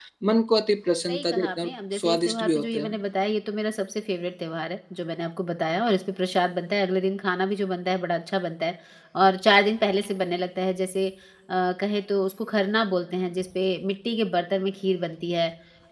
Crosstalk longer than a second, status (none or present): present